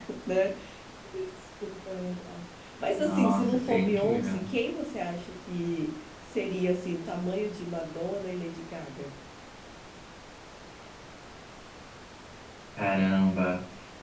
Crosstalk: present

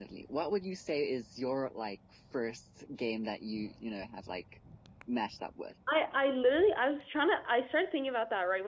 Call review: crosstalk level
none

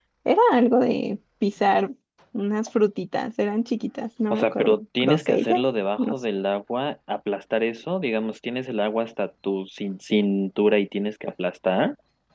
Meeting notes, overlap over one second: present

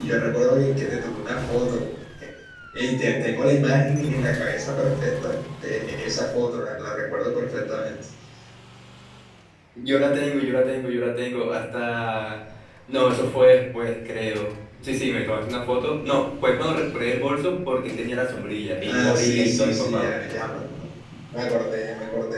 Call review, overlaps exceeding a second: present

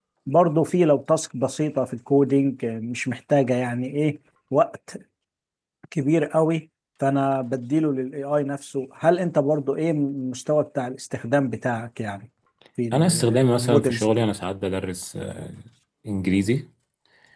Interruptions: present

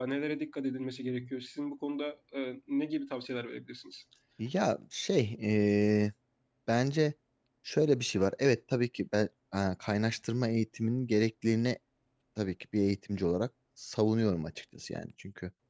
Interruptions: none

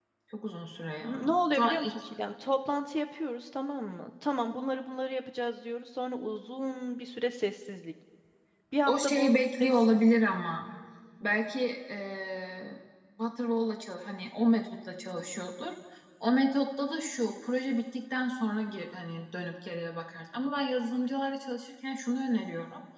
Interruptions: present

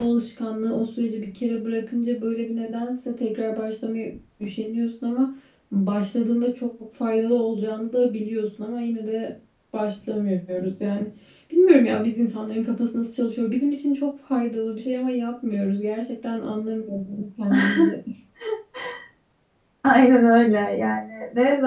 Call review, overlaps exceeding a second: none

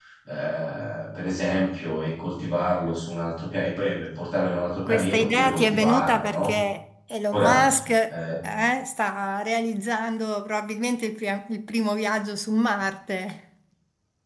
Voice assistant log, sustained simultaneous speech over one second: present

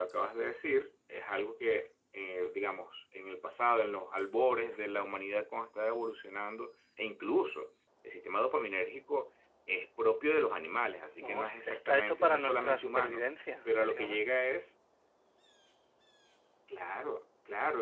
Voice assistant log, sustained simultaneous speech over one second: present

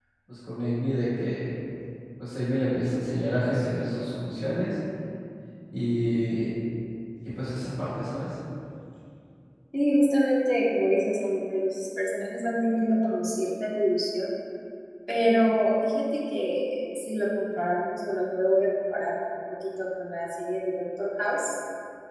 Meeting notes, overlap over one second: none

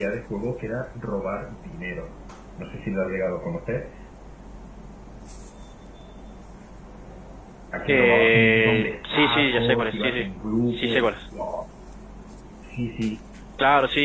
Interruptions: present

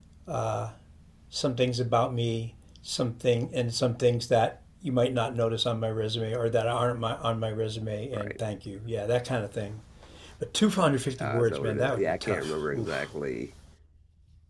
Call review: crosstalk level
present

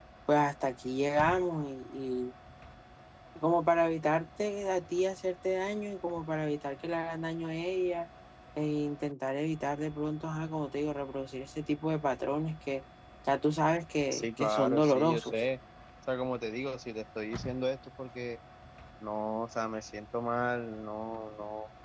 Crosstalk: present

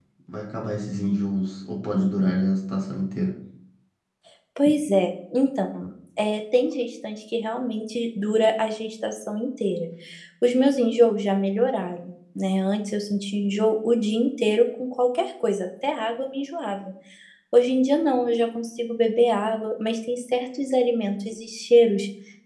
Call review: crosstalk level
none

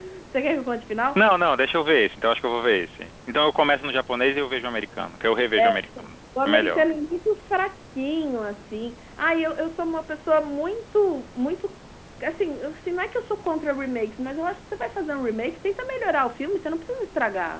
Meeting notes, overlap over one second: none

